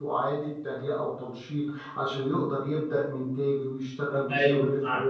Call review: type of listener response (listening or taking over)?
taking over